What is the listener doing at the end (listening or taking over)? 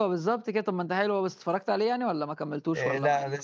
taking over